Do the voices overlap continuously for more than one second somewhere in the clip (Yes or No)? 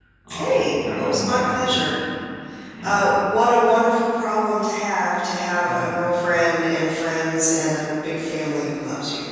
Yes